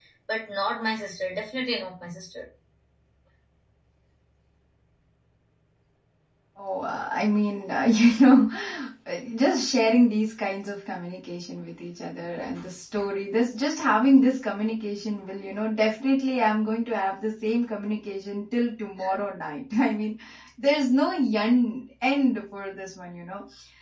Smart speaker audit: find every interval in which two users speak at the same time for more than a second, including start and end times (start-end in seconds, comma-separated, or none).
none